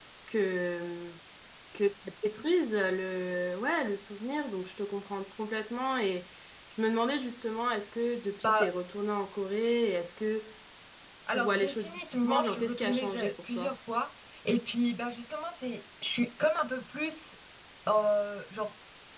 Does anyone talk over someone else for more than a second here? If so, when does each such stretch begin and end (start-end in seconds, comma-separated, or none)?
11.3-13.7